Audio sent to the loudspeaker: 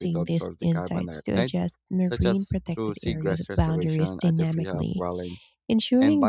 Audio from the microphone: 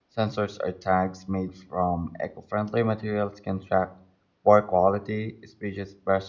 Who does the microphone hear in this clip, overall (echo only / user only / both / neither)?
user only